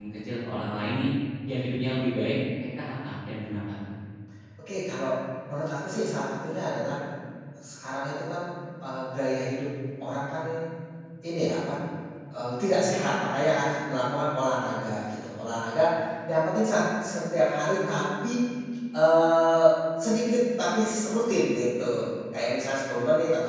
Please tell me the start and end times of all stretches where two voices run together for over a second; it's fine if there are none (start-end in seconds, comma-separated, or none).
none